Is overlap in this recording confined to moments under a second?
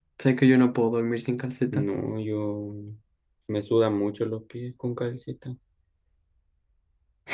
Yes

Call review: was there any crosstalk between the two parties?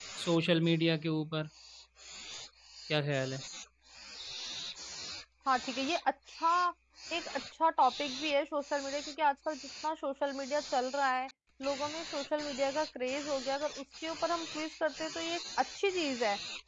No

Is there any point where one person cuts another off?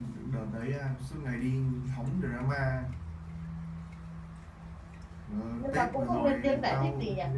Yes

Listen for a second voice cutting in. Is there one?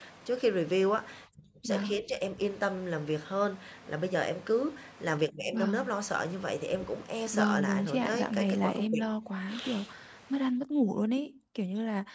Yes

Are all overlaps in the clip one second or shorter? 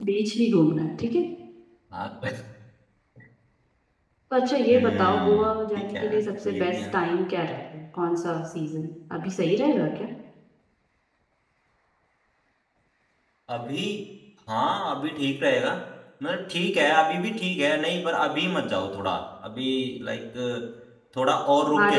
No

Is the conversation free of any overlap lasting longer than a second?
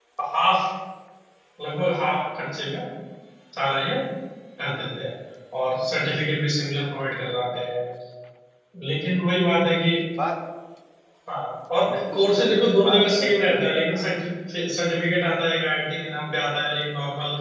No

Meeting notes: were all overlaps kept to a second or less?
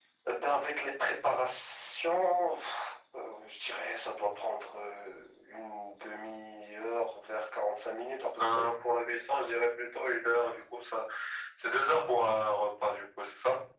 Yes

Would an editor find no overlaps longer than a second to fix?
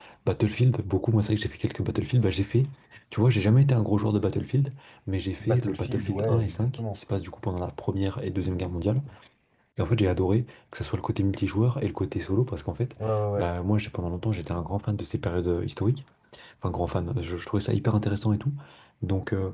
No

